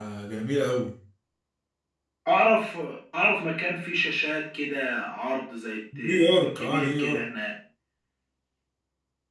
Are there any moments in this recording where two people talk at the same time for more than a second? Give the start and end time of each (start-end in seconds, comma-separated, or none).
6.0-7.2